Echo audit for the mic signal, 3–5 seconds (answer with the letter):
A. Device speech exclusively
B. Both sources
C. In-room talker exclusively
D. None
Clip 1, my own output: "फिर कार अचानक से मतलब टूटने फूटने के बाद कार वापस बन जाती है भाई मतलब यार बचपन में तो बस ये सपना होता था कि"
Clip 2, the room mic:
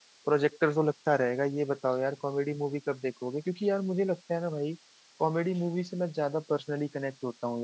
C